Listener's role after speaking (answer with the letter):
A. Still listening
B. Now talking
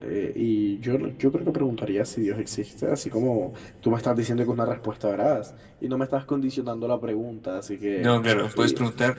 B